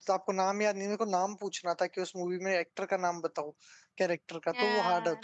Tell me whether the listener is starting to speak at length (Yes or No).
Yes